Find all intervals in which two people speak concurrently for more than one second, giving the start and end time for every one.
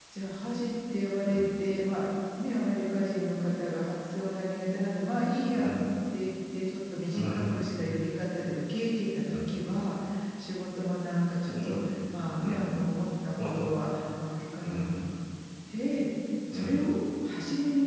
none

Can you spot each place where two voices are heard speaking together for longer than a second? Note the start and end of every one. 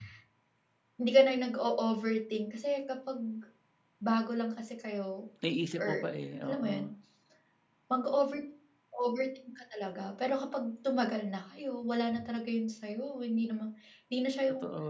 none

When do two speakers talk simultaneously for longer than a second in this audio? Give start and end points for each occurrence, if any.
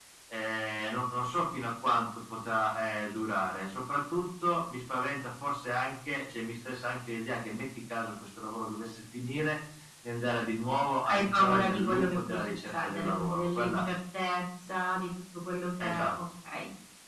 11.0-13.8

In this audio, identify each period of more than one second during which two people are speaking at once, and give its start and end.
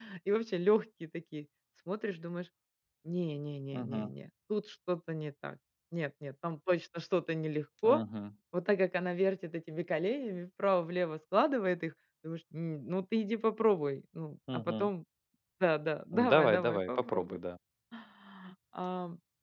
16.1-17.4

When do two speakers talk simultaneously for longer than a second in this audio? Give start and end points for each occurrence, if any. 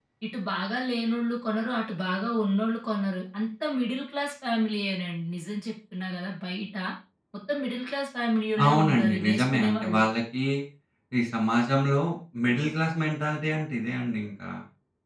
8.6-10.0

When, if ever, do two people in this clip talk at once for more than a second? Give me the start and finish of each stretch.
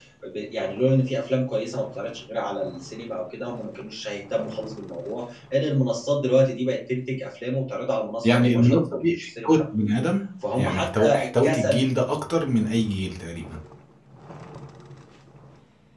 8.2-9.5, 10.6-11.8

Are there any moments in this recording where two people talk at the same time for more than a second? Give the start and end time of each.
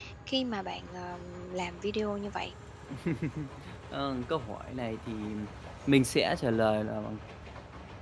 none

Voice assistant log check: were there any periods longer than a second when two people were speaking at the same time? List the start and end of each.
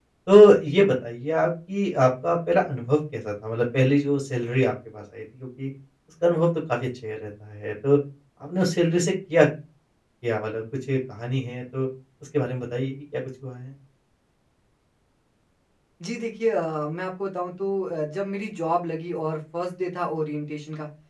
none

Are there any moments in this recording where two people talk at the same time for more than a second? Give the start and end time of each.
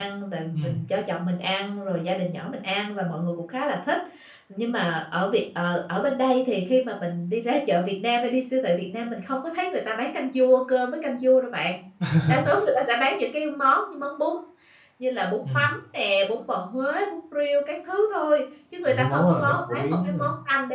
18.9-20.2

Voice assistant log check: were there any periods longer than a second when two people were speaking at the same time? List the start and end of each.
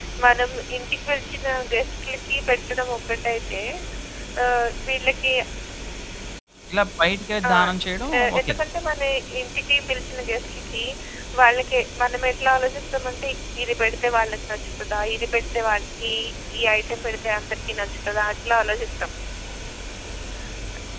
none

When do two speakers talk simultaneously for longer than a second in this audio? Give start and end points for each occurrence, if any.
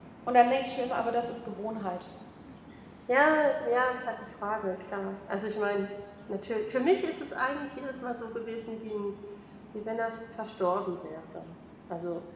none

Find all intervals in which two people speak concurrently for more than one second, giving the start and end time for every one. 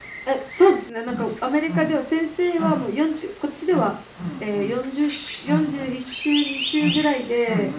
none

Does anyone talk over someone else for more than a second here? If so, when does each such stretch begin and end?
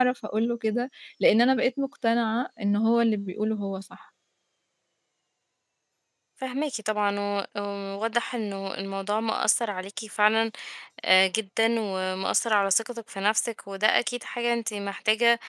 none

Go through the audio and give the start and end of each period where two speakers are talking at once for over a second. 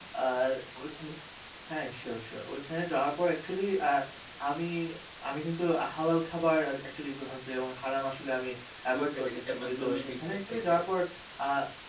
8.9-10.7

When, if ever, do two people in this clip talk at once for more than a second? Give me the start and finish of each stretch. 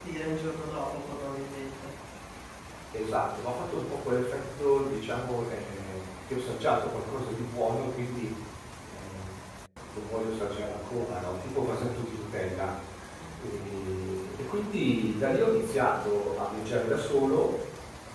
none

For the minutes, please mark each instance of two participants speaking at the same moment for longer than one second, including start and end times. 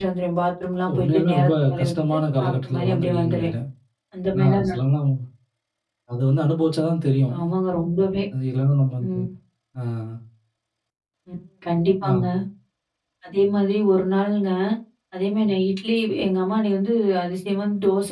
0.9-3.5

